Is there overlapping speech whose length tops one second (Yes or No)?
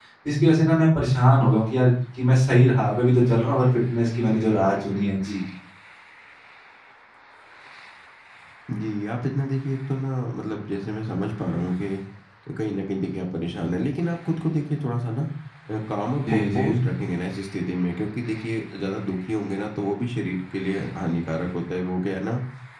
No